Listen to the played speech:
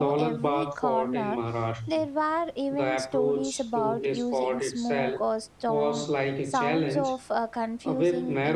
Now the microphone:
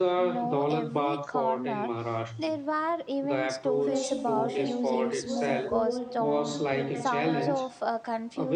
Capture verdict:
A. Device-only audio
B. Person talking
B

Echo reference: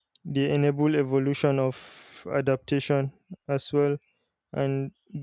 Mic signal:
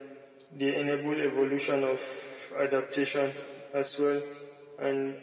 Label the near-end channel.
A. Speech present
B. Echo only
B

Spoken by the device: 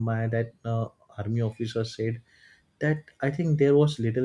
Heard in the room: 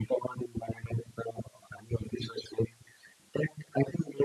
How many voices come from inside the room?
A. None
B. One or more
A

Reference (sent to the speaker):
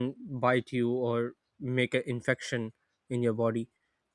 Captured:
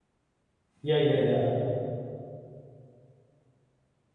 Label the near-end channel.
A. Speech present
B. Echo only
A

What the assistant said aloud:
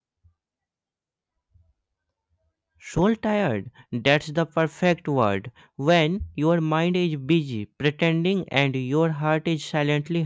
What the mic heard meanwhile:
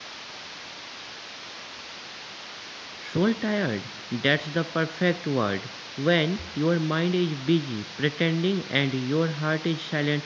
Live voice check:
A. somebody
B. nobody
B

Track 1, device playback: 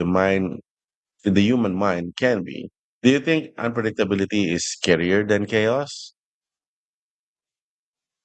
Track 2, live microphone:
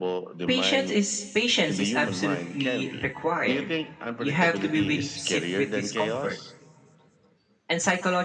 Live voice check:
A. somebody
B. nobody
A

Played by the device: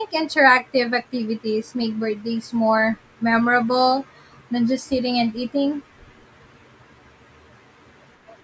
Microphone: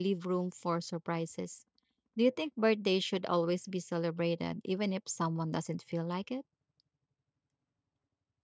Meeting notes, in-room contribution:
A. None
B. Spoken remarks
B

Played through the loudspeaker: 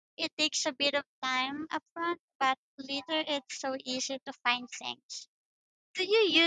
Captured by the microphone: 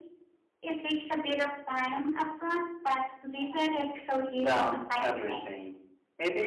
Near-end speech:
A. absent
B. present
B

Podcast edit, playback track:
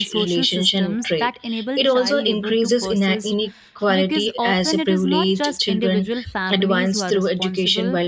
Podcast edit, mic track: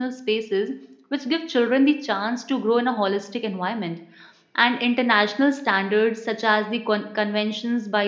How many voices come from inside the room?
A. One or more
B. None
A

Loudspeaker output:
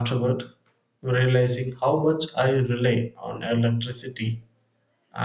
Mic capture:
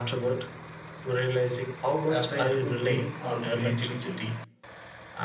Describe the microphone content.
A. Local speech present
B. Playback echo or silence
A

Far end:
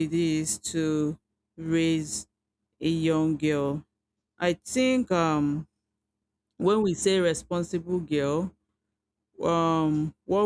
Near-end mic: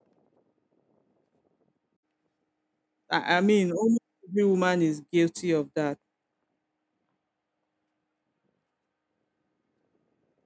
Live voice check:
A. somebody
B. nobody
A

